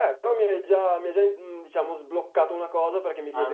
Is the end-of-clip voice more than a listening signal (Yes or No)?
No